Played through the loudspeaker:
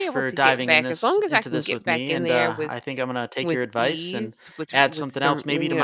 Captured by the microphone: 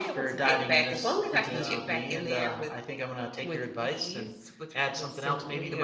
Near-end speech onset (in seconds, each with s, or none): 1.3 s